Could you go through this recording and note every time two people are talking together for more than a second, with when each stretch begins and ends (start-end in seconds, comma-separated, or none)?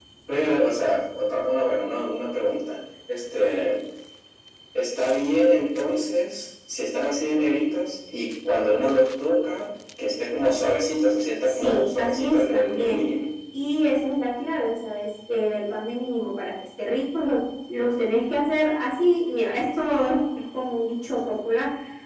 11.4-13.0